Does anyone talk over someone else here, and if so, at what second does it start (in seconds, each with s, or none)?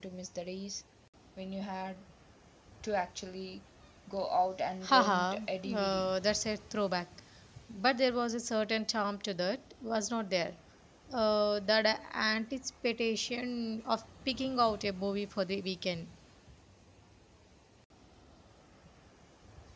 4.9 s